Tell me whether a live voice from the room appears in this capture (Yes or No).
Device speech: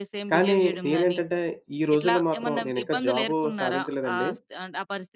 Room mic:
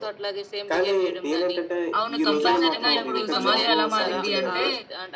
Yes